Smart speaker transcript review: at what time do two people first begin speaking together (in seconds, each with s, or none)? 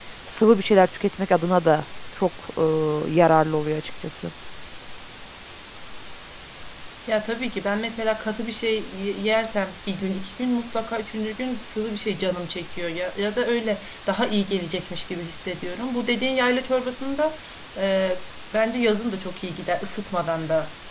none